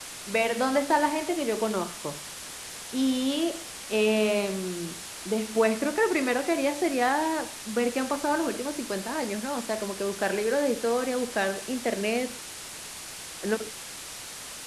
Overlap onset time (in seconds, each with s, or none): none